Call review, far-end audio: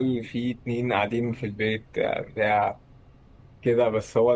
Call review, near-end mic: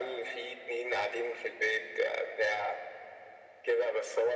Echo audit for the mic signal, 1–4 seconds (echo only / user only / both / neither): echo only